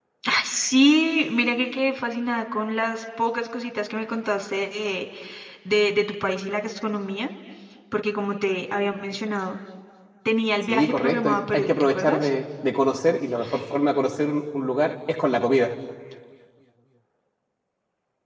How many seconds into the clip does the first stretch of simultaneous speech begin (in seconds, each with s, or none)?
10.6 s